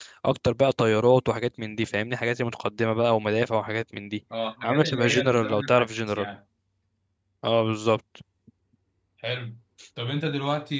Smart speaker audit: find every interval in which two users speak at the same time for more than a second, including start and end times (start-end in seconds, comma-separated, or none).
4.6-6.3